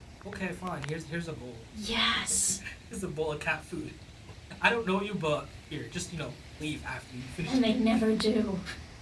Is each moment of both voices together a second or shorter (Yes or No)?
Yes